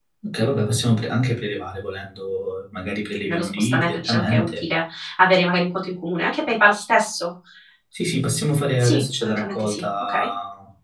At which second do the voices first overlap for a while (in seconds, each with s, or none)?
3.2 s